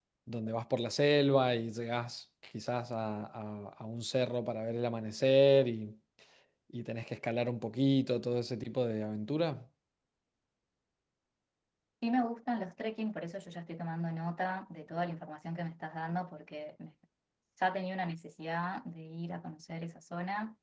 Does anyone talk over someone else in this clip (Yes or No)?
No